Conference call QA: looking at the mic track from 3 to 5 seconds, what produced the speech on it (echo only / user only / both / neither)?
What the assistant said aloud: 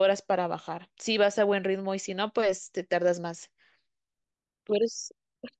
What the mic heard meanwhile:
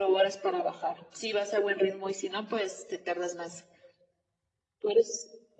echo only